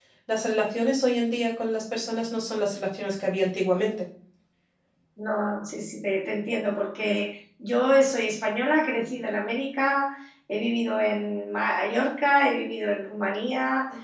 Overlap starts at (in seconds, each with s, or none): none